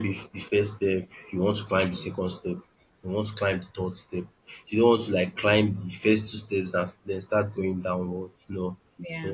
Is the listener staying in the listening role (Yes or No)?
Yes